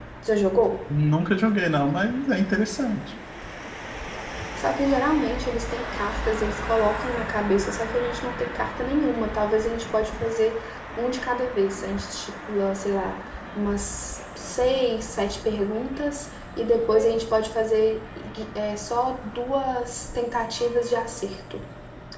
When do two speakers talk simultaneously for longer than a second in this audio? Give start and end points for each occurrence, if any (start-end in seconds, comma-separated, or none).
none